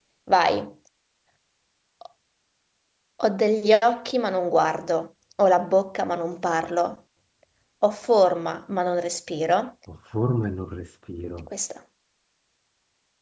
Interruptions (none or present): none